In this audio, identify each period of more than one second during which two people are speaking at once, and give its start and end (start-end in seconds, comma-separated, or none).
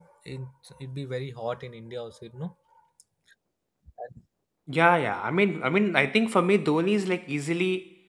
none